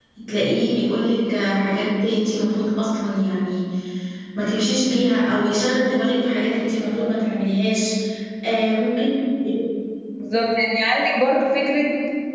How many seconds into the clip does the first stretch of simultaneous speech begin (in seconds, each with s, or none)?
none